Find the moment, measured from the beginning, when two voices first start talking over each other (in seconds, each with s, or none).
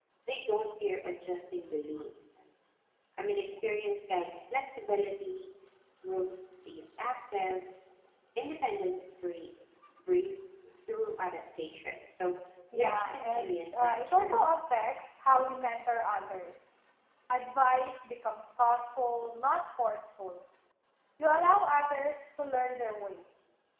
12.7 s